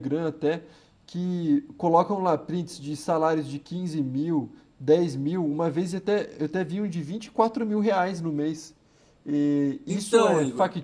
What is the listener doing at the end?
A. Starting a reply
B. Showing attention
B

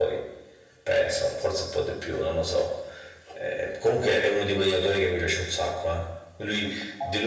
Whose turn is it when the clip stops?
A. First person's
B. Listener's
A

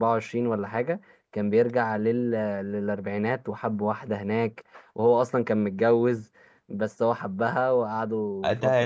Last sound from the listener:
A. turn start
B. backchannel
A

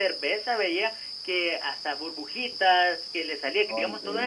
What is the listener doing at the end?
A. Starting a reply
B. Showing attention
B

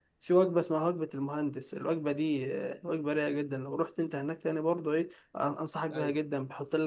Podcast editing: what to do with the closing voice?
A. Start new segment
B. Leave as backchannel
B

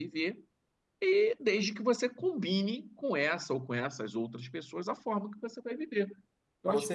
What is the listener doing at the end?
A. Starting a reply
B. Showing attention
A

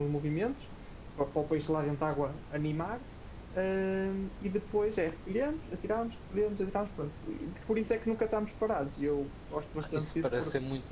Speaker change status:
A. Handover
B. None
A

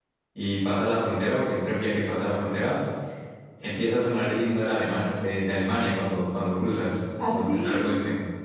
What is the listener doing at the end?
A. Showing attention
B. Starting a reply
A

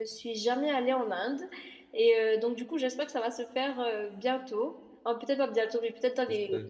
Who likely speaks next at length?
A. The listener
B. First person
B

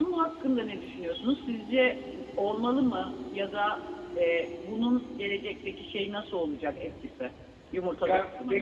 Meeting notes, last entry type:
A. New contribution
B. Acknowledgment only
A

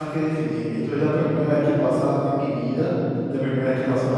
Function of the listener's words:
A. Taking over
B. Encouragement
B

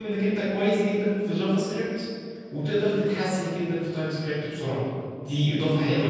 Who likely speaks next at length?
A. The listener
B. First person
A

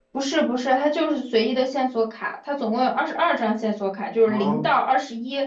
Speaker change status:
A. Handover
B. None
B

